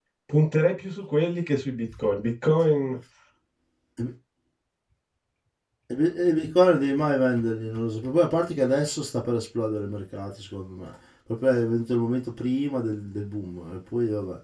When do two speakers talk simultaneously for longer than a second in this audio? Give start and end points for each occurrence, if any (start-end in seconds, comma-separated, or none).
none